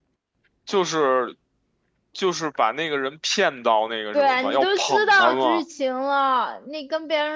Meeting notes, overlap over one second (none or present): present